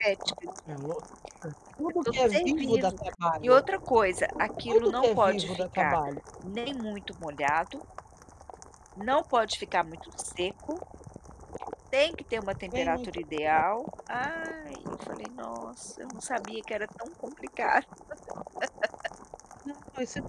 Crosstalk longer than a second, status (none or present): present